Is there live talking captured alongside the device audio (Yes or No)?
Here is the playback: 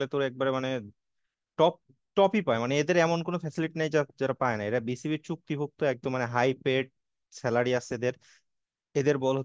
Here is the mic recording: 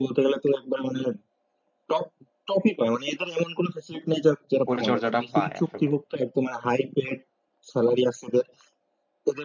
Yes